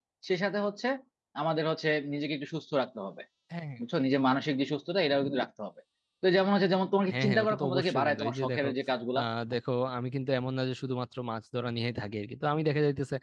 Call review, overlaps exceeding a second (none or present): present